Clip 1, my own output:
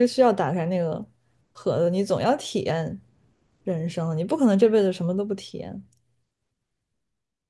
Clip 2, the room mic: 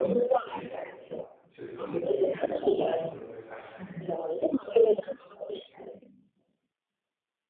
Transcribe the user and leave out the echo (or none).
结果就一定什么都不会发生。